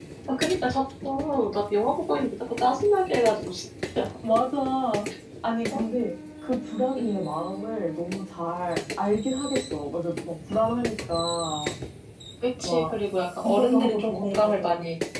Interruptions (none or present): present